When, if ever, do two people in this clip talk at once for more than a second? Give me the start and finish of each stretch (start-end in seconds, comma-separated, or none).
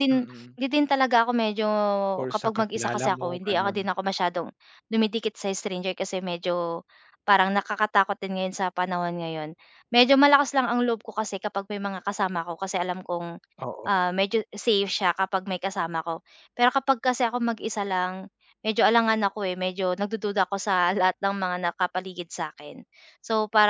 2.3-3.8